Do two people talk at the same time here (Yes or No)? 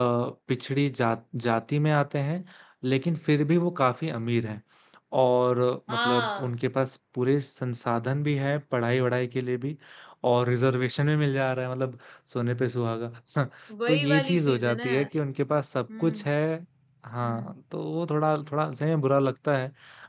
Yes